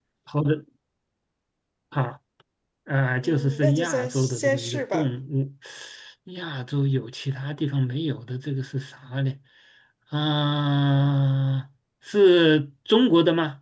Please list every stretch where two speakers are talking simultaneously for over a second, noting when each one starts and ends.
3.2-5.1

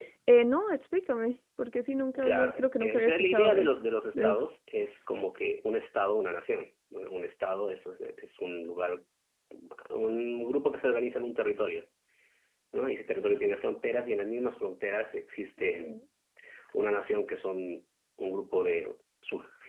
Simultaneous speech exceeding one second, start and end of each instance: 2.2-3.7

